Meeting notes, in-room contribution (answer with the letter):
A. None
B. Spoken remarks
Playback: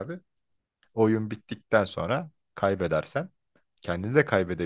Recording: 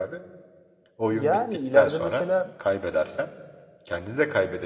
B